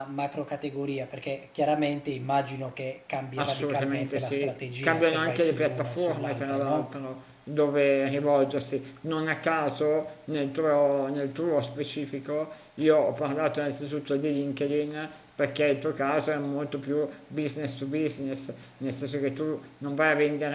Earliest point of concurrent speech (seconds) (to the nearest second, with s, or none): 3 s